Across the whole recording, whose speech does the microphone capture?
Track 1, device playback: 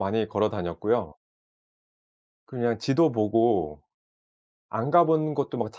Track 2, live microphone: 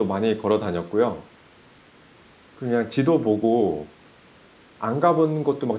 echo only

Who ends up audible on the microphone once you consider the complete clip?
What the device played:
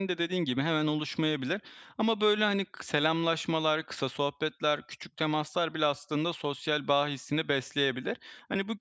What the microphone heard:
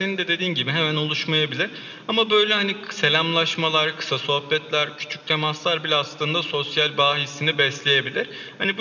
echo only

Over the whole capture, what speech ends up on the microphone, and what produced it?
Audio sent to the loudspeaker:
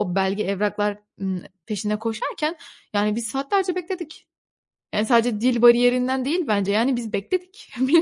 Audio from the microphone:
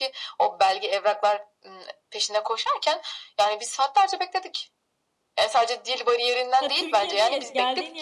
both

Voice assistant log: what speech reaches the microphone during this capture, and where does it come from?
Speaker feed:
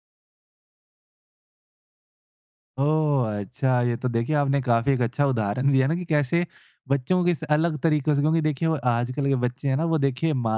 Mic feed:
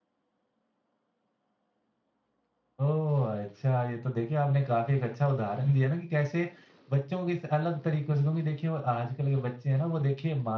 echo only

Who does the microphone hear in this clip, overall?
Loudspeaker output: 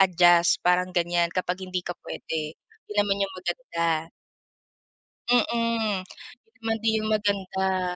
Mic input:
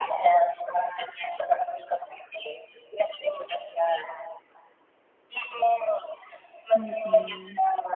both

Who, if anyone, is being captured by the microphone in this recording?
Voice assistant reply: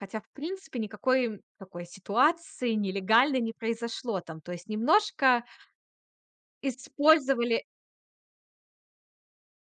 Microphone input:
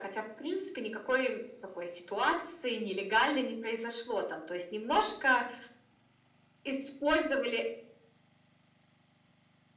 echo only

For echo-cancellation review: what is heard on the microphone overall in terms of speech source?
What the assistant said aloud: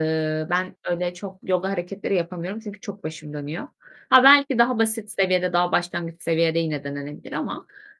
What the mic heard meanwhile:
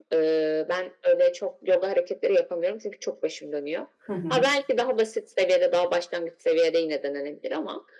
both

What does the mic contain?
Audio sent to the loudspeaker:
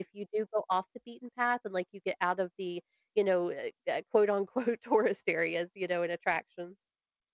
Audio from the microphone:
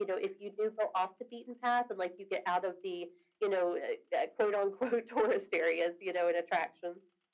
echo only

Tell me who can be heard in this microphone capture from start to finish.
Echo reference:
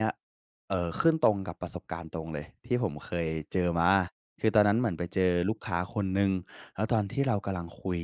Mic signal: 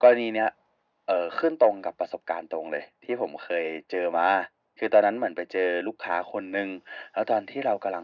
echo only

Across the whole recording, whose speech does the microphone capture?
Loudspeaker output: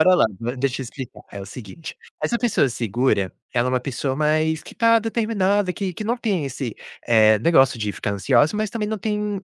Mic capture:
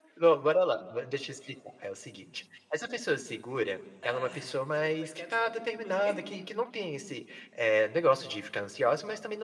both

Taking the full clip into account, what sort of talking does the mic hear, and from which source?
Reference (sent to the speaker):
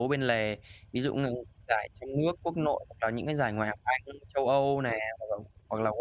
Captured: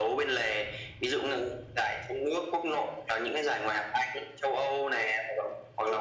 echo only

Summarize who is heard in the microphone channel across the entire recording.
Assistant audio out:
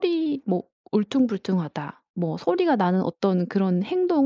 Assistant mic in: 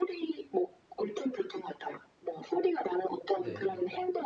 both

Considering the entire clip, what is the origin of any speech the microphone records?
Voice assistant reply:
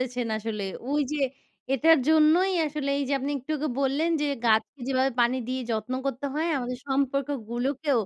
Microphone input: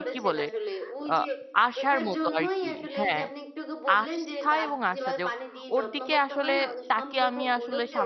both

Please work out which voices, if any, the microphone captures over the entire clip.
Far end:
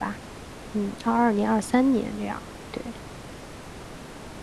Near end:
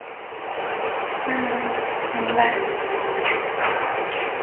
user only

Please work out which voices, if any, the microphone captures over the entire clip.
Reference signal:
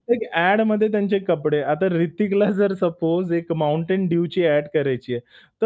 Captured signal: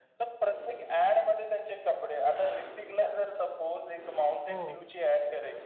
both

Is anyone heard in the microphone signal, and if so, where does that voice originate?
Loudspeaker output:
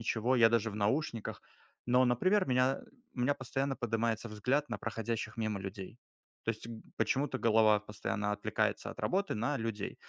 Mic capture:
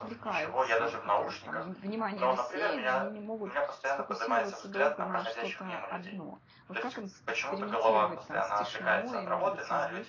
both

